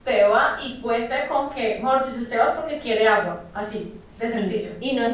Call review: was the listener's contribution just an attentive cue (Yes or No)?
No